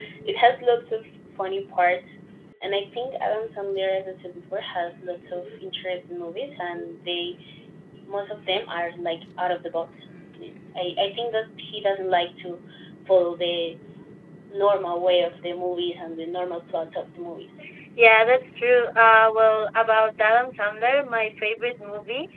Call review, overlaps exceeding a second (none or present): none